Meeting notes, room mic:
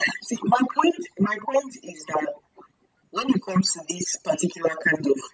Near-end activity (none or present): none